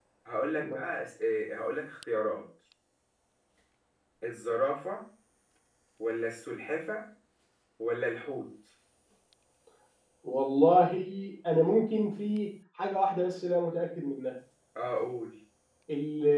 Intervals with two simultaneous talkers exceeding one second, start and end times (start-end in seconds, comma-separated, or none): none